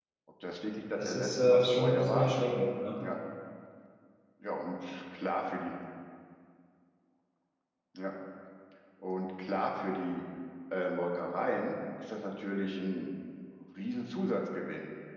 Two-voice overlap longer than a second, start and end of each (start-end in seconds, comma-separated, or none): 1.0-2.3